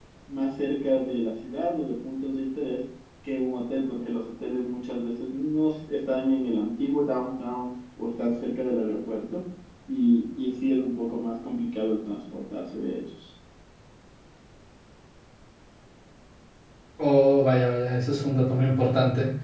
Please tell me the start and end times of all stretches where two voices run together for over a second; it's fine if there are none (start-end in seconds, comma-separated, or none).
none